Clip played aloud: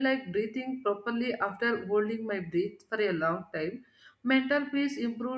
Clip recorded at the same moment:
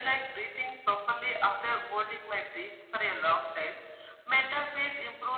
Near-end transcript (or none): none